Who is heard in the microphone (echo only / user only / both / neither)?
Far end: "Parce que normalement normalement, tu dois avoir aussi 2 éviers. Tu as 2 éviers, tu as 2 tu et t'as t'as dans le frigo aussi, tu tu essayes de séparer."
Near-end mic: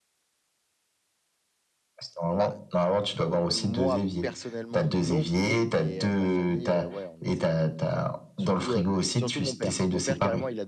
both